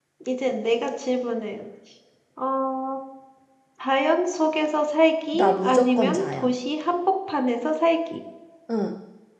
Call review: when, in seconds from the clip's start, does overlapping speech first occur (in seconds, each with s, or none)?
5.3 s